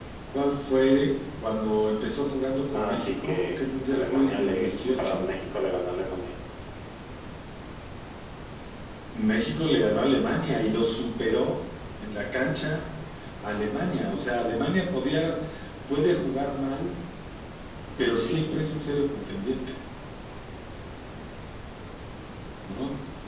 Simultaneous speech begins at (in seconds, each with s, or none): 2.7 s